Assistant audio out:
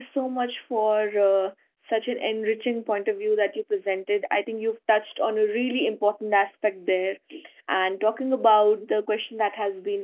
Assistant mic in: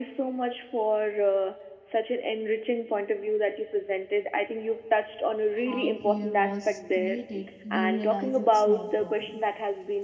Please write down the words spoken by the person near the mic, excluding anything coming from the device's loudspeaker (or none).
how fear was created, you realize it's not permanent.